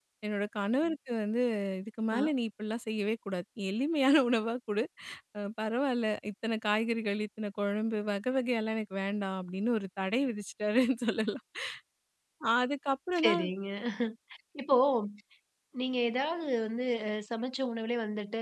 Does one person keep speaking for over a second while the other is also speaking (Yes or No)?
No